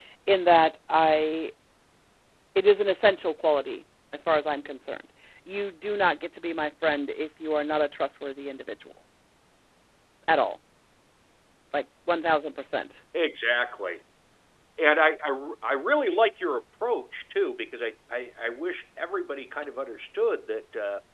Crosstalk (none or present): none